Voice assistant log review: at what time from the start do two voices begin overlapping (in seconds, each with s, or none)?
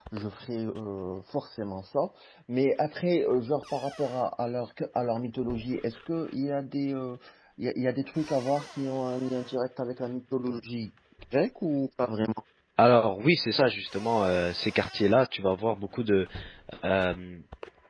none